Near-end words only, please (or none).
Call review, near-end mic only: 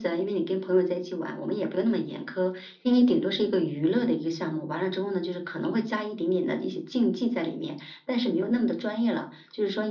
none